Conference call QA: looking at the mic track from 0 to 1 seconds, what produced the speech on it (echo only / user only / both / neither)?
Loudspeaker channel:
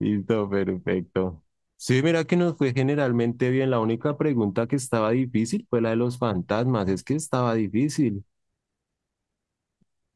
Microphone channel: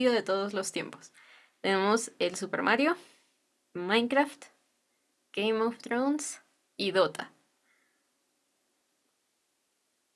user only